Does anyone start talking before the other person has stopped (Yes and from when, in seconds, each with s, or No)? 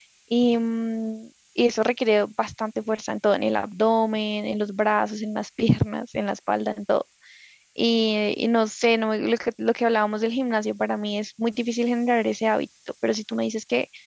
No